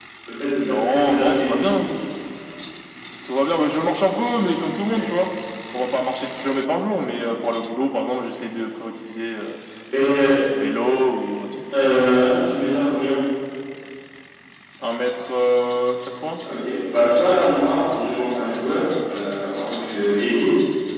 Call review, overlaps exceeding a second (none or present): present